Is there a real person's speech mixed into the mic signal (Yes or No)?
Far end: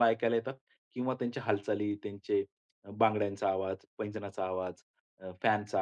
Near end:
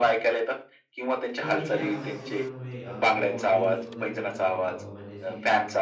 Yes